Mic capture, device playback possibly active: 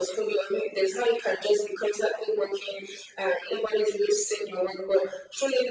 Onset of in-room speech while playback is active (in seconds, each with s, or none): none